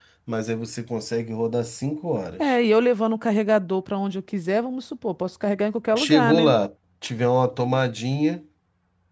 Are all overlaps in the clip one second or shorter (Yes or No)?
Yes